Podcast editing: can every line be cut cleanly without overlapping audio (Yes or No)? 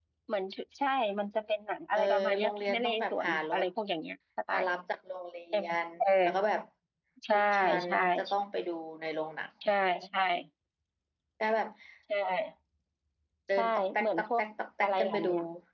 No